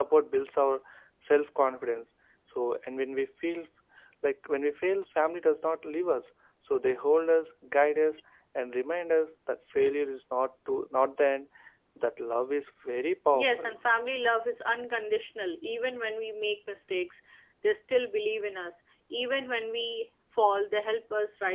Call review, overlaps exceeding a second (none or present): none